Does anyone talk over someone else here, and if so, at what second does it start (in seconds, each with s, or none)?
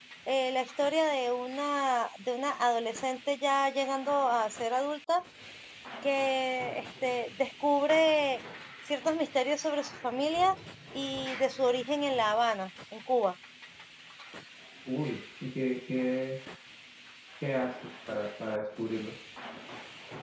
none